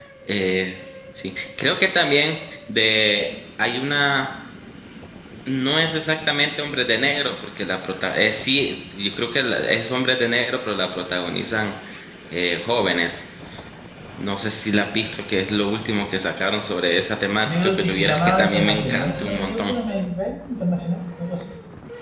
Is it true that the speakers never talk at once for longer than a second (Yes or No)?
No